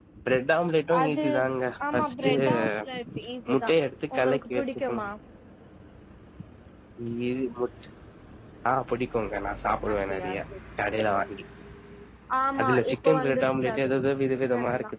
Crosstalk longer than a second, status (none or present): present